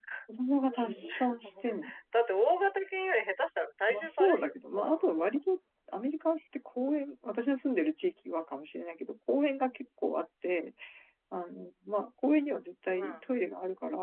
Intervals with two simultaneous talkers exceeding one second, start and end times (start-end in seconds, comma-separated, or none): 3.9-5.4